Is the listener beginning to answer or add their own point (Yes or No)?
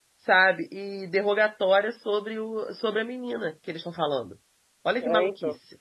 Yes